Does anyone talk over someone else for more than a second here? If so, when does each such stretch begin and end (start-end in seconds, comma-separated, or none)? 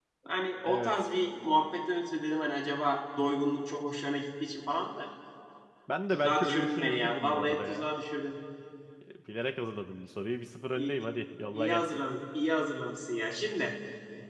6.1-7.9